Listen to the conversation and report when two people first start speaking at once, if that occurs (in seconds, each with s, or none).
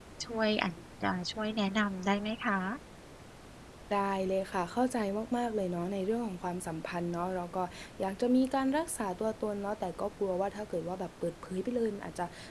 none